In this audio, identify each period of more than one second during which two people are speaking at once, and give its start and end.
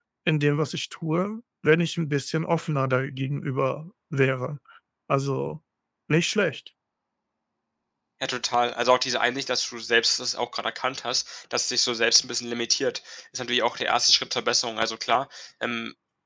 none

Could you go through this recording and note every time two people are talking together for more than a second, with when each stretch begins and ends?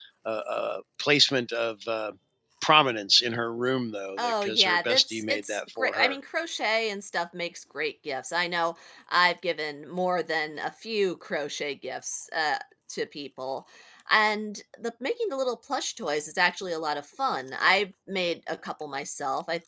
4.2-6.2

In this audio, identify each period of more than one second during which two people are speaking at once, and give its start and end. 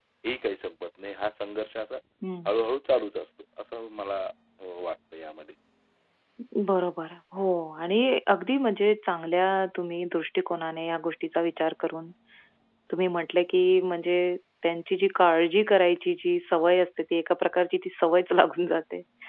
none

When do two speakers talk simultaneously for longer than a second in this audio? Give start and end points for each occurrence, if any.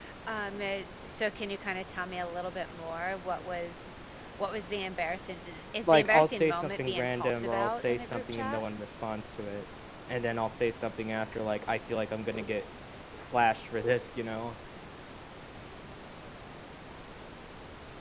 5.9-8.6

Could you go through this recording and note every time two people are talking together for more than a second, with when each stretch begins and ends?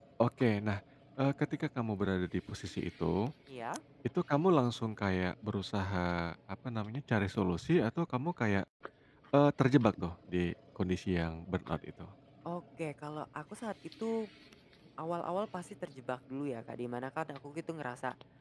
none

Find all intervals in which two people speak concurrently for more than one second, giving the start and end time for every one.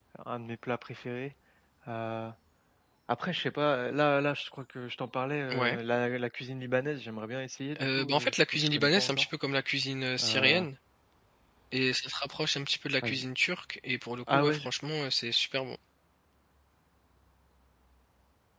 7.8-9.2

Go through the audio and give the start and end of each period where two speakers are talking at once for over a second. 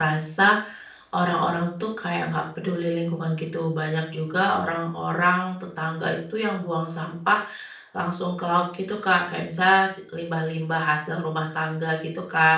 none

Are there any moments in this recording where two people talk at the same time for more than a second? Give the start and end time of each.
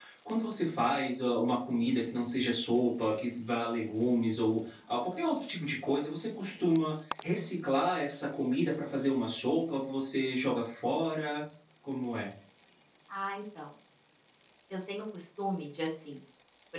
none

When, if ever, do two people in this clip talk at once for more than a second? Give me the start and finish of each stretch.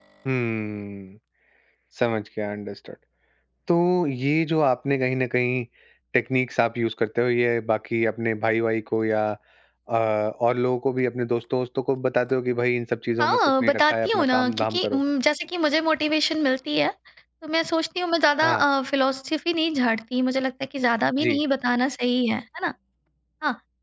13.2-15.0

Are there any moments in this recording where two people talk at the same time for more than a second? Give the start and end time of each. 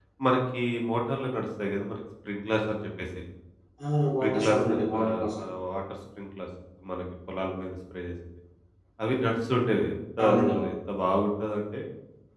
4.2-5.4

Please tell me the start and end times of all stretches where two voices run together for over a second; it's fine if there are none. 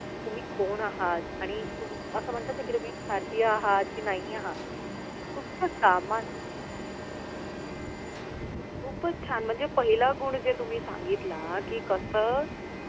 none

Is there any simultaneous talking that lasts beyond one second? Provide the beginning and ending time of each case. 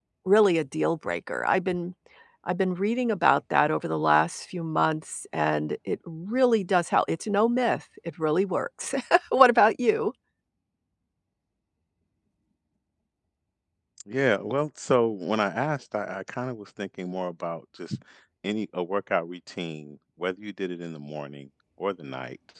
none

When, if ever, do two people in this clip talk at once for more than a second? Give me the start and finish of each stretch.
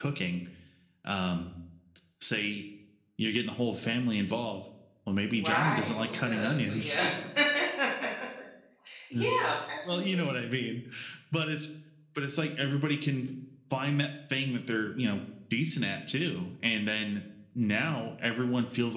5.3-7.0

